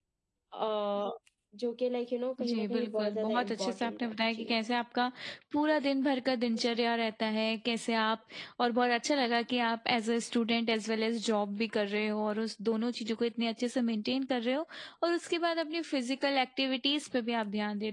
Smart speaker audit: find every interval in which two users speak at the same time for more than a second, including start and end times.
2.4-4.5

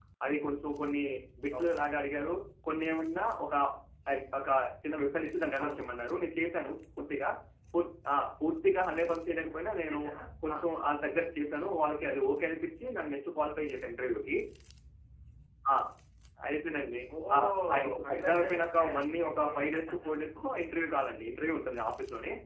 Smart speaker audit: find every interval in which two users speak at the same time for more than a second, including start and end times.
17.7-19.5

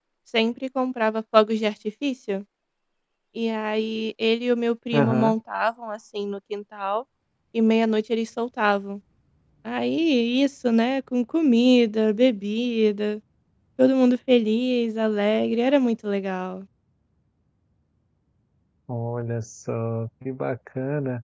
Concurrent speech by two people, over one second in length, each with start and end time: none

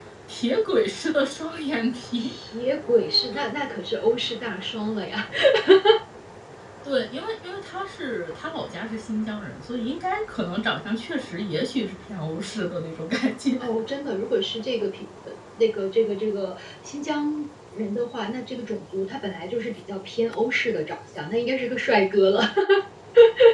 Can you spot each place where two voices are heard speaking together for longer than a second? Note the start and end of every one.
none

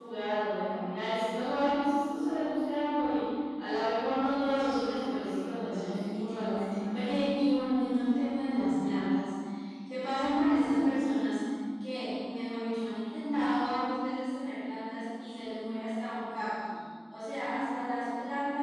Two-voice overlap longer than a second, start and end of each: 4.4-7.0

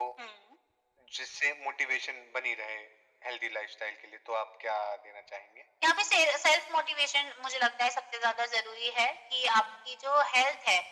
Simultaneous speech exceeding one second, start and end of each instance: none

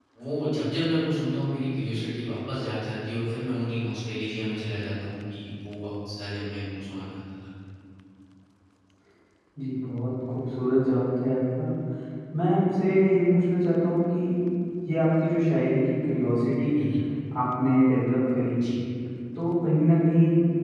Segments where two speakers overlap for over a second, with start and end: none

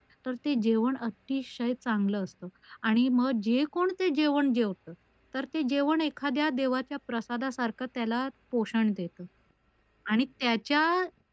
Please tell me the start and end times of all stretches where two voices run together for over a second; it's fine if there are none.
none

